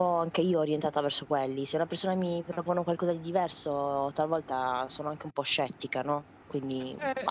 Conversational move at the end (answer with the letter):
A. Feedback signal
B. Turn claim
B